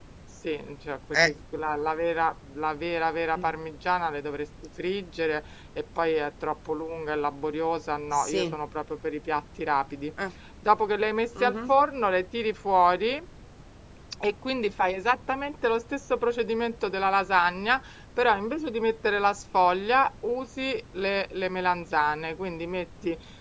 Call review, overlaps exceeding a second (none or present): none